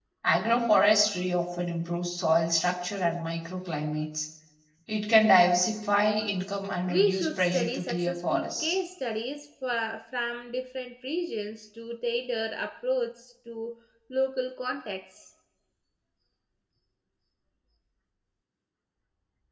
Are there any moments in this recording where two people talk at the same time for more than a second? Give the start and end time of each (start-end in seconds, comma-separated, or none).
6.8-8.8